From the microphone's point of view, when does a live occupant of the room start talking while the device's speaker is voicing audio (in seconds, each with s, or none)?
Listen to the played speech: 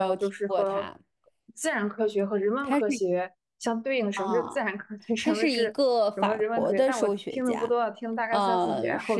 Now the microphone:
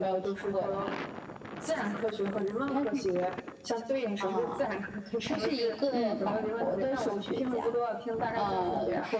5.9 s